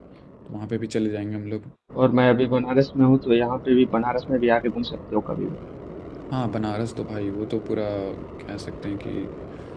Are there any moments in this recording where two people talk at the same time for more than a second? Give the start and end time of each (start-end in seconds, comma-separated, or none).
none